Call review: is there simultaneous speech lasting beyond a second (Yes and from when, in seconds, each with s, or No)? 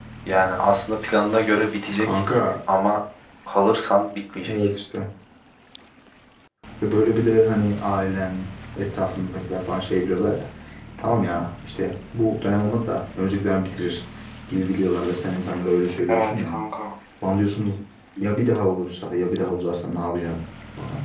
No